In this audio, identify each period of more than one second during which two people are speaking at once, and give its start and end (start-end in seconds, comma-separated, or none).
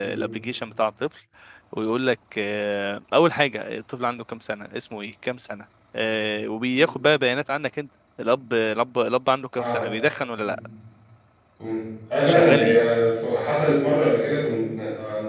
none